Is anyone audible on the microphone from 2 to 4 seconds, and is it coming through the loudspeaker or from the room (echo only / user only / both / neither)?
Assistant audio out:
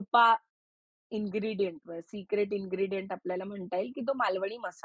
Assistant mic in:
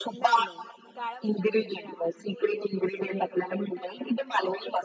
both